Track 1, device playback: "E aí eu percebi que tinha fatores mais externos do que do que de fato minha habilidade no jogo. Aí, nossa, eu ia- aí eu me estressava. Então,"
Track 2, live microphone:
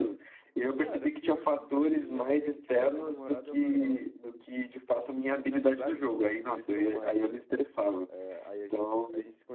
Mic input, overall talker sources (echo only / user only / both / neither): both